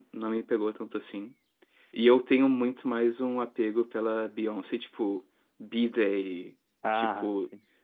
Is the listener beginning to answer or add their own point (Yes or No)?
No